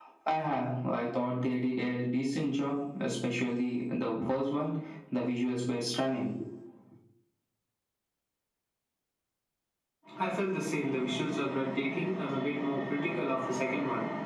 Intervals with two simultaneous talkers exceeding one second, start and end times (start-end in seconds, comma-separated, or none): none